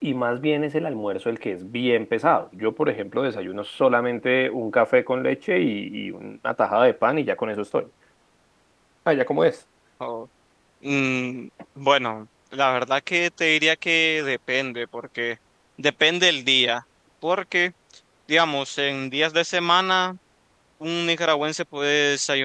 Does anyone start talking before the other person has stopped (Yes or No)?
No